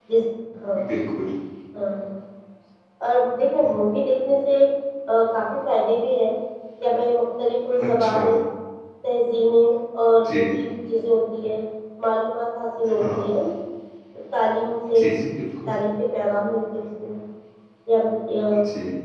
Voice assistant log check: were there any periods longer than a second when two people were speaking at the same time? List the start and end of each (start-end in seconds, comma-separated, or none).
none